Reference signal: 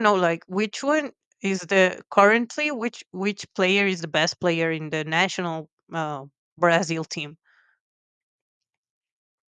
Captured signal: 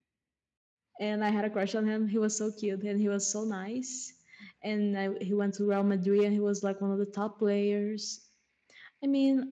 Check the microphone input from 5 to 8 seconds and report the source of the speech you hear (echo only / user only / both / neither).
user only